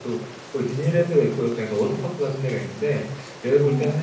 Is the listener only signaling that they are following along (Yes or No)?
Yes